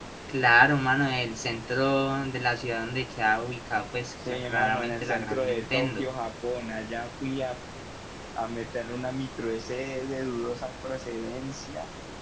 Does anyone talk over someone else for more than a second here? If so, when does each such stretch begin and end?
4.3-6.1

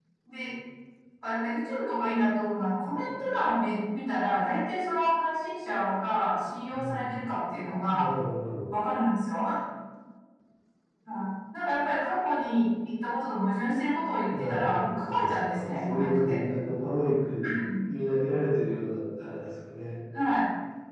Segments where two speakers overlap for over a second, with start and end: 14.4-16.4

